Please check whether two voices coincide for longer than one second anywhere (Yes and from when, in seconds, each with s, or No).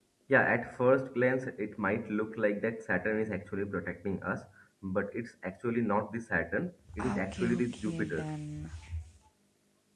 Yes, from 6.8 s